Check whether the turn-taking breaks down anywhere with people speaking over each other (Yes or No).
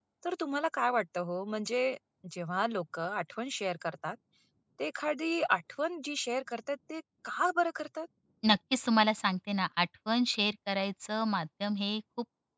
No